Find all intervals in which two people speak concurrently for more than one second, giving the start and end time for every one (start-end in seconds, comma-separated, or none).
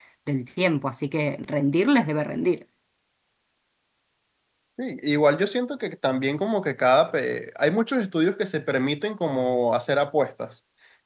none